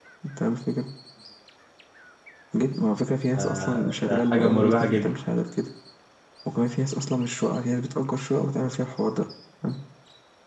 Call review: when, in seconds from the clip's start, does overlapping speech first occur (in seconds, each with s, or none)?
3.4 s